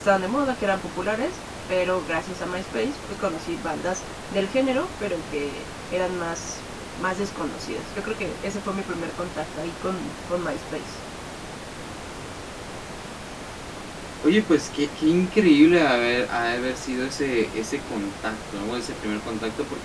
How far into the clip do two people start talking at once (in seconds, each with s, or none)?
none